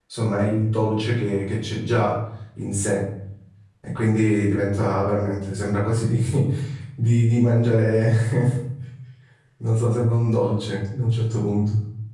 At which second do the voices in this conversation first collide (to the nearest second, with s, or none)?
none